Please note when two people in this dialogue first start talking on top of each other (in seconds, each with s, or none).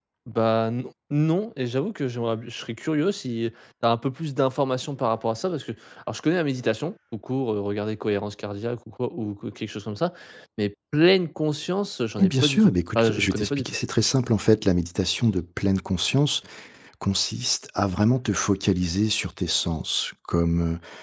12.2 s